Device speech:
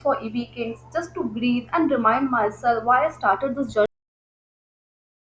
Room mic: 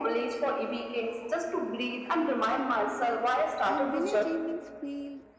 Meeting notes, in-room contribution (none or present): present